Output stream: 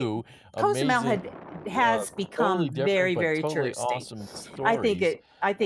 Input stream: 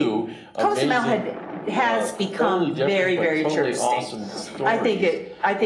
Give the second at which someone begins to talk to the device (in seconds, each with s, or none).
none